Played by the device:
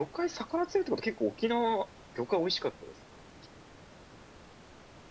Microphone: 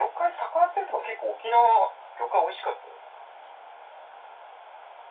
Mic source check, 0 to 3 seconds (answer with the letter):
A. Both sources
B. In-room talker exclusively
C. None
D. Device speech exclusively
D